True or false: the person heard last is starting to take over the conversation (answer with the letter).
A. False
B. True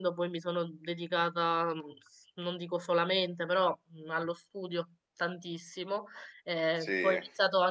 A